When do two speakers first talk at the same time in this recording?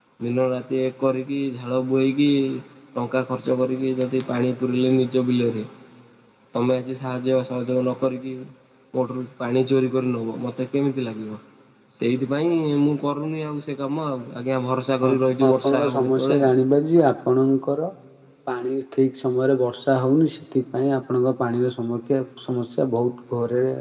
15.0 s

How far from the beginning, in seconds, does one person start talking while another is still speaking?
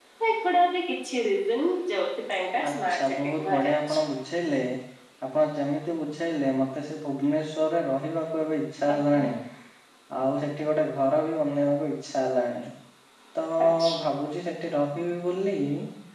2.7 s

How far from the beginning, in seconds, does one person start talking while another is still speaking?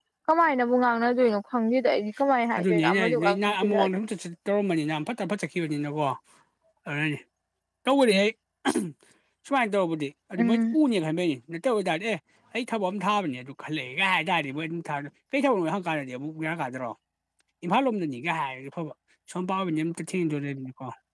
2.6 s

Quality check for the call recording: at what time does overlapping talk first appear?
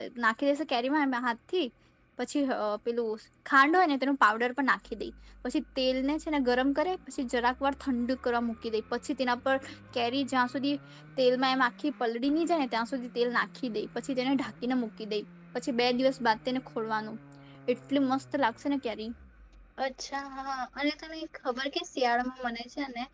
none

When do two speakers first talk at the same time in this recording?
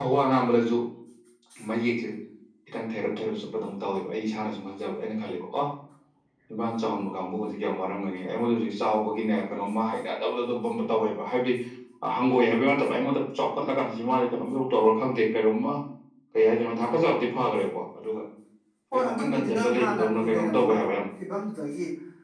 18.9 s

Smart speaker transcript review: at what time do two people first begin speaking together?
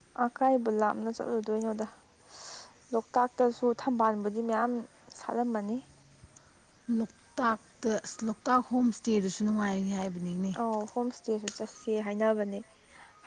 none

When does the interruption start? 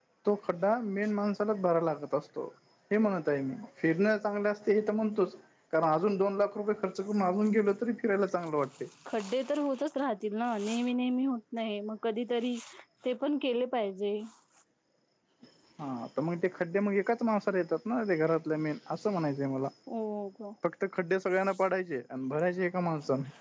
none

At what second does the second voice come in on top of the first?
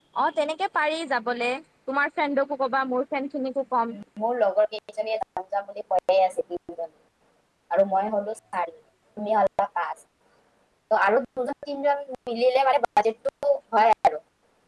none

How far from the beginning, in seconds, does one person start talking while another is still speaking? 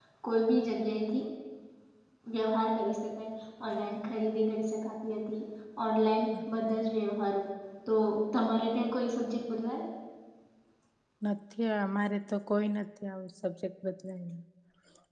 none

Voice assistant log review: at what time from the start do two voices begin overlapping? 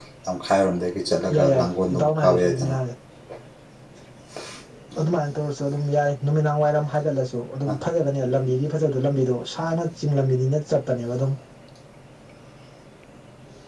1.3 s

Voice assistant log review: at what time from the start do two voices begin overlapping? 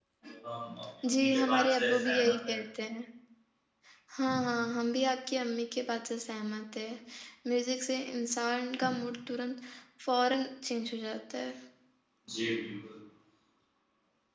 1.1 s

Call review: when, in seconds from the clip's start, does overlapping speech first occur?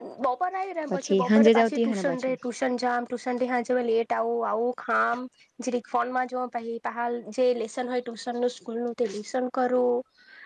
0.9 s

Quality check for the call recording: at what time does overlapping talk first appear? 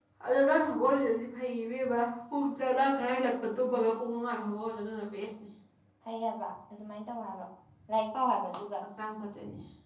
none

